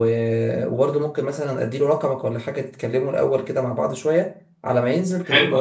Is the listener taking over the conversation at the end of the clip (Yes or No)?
Yes